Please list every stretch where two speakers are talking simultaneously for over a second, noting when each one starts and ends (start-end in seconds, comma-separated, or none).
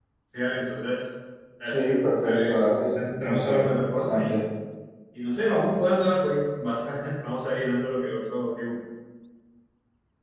2.2-4.3